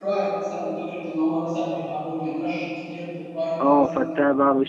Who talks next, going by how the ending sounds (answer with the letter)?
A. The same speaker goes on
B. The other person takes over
B